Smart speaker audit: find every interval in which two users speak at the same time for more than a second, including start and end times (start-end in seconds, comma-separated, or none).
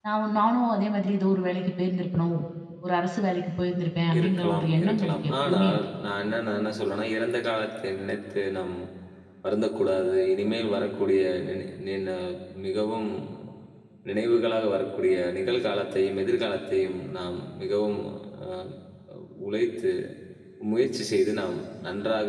4.2-5.8